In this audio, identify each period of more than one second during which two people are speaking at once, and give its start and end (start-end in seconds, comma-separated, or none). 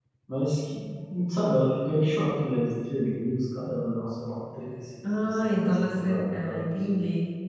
5.2-6.8